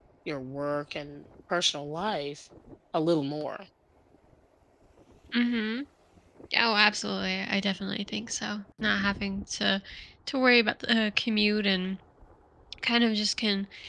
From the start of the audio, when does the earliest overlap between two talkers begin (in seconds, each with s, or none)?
none